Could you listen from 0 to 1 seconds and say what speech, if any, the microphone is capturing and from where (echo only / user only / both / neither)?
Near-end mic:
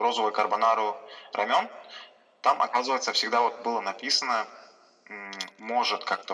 echo only